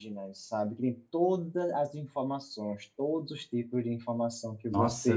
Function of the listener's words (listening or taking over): taking over